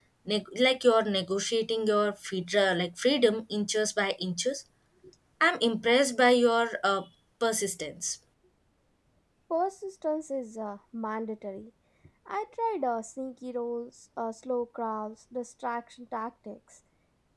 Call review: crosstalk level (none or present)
none